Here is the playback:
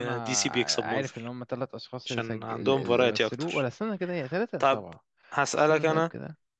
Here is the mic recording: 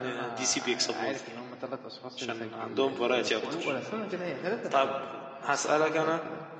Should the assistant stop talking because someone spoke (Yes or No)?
Yes